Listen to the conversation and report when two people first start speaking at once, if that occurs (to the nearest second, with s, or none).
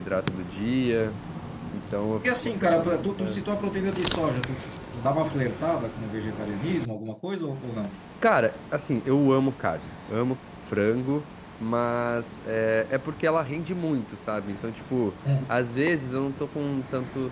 2 s